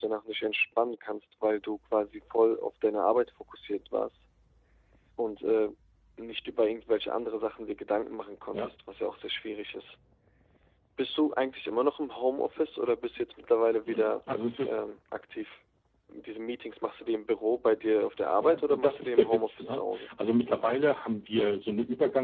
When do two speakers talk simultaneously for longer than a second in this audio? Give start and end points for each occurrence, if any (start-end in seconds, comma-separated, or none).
18.4-20.1